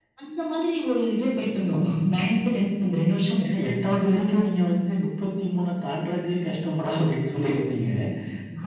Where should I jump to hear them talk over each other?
none

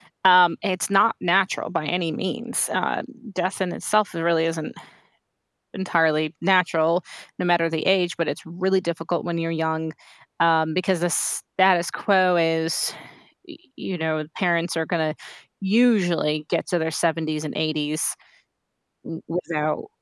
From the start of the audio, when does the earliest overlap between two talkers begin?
none

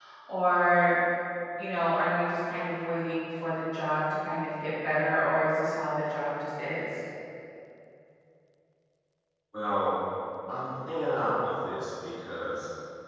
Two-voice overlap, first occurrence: none

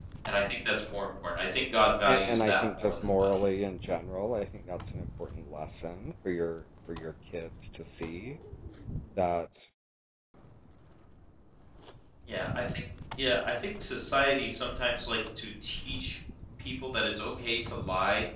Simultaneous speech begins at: 2.0 s

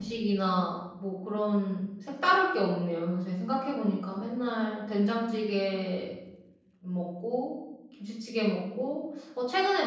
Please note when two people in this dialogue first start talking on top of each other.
none

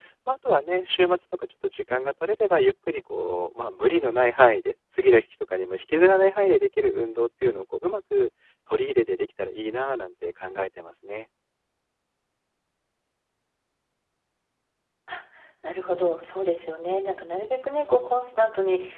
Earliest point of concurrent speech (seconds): none

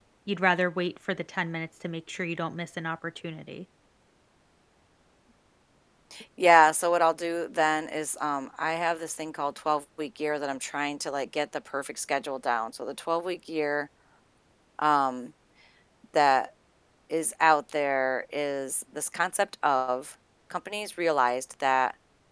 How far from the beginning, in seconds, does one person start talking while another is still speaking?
none

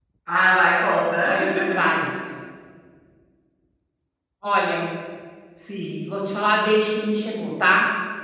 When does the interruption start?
none

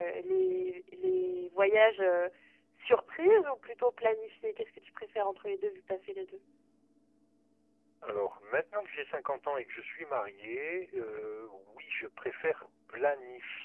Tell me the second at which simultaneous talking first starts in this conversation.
none

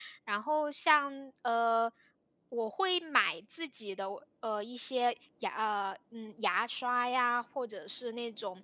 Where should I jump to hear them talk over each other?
none

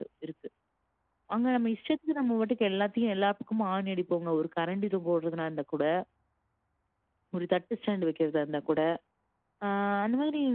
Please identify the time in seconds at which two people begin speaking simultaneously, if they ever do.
none

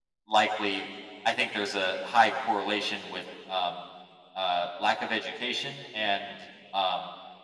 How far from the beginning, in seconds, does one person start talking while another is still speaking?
none

